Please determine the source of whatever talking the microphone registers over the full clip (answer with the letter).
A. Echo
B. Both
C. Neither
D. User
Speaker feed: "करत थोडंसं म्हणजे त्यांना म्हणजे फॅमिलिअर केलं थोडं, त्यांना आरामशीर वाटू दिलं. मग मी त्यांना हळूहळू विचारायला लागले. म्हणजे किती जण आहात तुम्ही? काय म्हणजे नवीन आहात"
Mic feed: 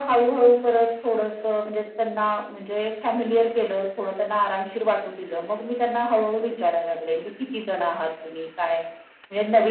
A